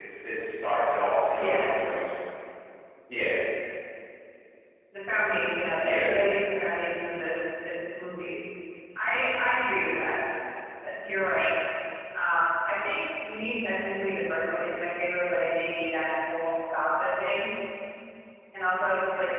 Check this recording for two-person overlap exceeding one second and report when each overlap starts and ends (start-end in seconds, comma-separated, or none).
none